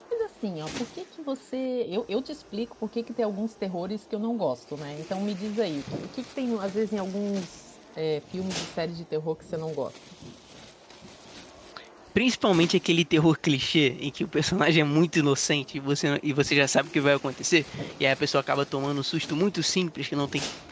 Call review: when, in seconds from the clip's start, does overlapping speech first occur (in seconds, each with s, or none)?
none